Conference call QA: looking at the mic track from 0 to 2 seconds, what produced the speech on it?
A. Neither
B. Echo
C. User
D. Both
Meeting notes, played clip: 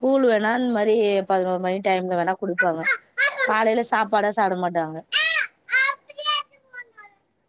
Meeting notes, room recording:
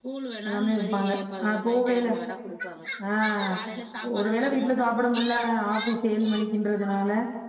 D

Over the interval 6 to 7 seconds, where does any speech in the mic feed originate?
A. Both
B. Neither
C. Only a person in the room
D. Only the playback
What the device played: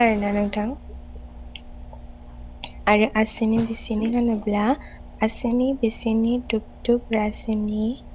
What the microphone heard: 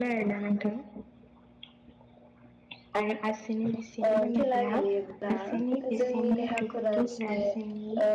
A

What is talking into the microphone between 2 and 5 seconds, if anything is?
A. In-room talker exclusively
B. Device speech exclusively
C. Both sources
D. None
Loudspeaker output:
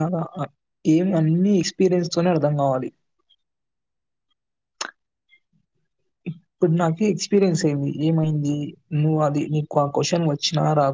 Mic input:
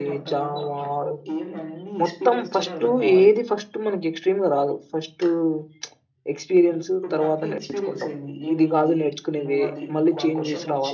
C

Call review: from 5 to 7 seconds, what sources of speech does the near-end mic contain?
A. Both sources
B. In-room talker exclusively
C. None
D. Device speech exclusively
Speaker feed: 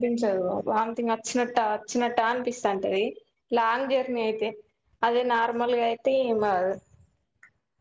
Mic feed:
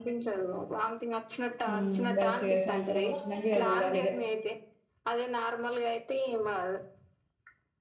D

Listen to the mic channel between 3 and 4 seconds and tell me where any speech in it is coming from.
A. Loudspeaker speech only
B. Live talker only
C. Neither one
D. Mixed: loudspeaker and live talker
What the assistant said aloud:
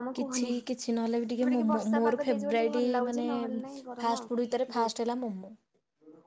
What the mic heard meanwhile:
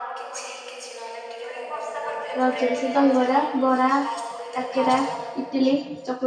D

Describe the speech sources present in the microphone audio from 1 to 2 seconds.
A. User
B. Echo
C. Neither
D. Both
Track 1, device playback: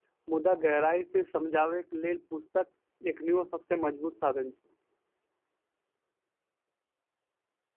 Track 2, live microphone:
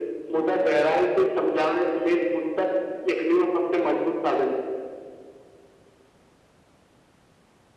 B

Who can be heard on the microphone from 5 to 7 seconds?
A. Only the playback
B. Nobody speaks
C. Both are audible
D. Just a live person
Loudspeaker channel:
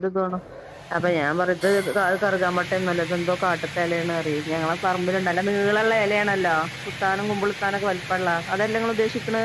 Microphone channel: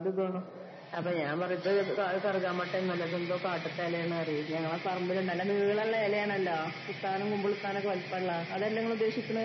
A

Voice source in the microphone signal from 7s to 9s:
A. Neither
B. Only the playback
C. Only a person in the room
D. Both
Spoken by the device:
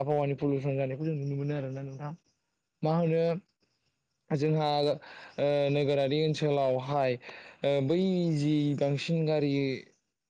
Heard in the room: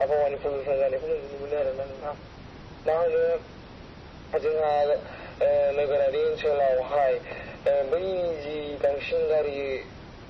B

